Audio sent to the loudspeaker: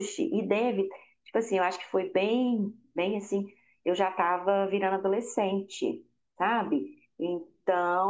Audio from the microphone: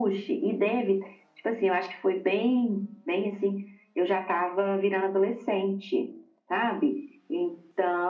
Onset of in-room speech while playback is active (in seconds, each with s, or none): none